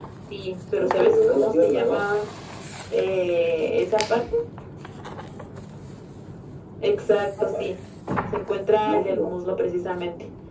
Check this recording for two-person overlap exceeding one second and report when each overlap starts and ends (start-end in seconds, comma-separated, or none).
0.8-2.1